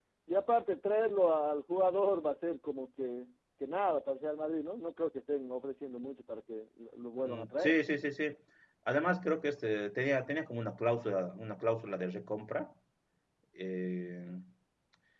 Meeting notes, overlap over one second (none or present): none